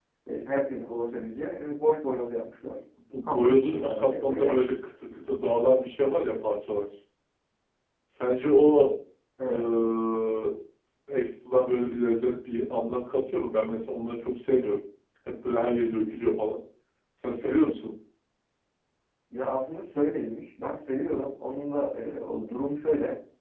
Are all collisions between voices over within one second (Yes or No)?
No